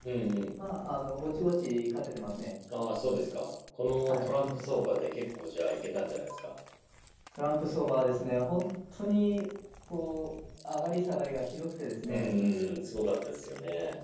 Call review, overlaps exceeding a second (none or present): none